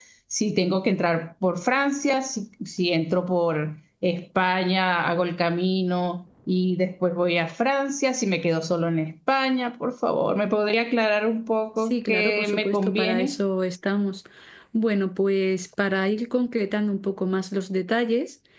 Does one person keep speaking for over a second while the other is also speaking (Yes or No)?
Yes